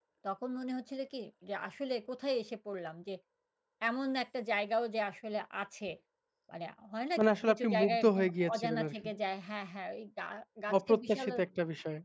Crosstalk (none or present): present